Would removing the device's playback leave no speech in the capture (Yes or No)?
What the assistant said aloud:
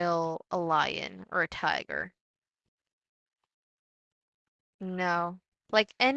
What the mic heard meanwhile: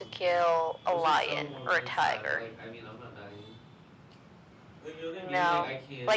No